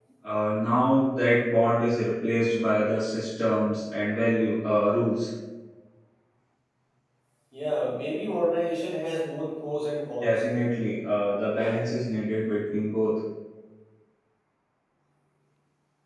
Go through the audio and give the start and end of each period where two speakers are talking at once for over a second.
none

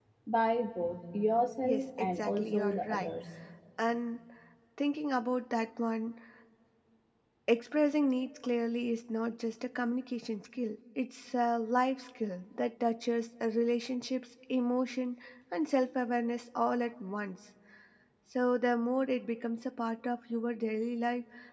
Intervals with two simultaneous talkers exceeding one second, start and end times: 1.6-3.1

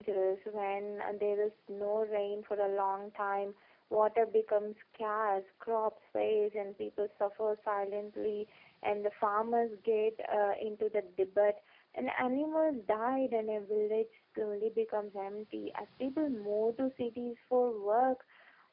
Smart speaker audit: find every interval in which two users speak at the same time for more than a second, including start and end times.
none

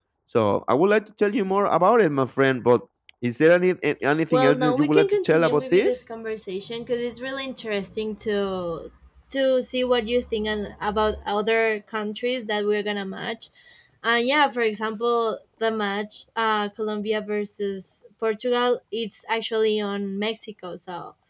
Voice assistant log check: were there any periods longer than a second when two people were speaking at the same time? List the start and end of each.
4.3-6.0

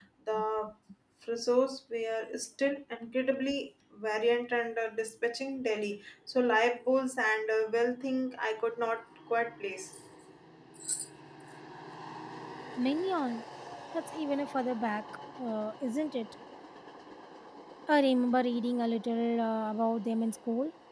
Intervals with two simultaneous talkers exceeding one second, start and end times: none

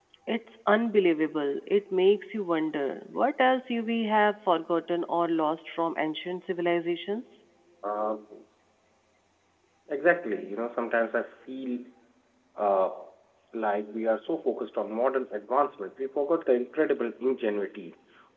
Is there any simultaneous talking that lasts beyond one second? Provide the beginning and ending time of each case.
none

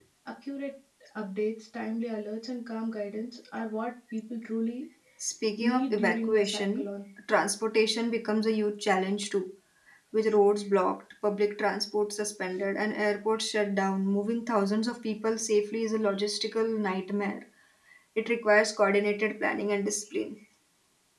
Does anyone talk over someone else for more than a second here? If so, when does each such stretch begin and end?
5.6-6.9

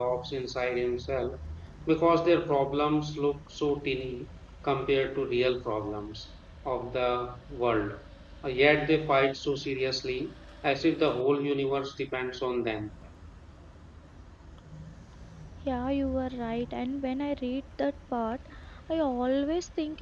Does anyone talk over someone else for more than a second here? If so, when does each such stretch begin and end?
none

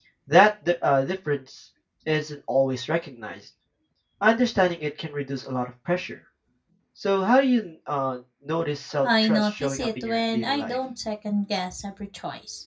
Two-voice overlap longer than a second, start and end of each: 9.0-10.8

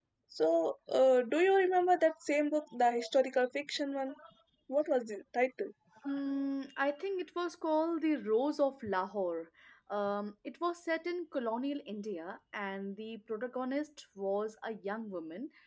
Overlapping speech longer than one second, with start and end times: none

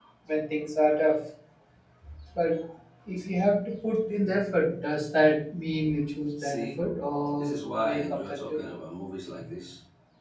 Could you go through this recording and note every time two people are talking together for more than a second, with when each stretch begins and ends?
7.4-8.6

